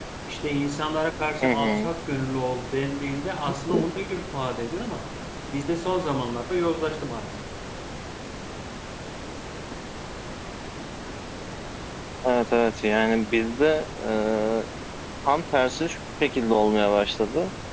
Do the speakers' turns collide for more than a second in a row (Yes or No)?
No